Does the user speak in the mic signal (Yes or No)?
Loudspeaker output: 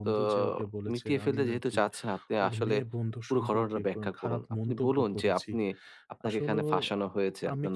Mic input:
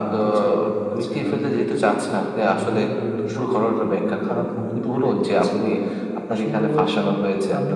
No